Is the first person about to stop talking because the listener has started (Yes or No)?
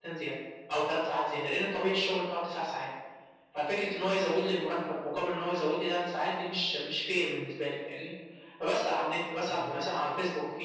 No